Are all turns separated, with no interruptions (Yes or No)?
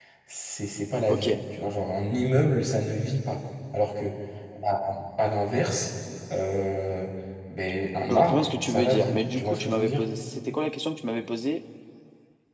No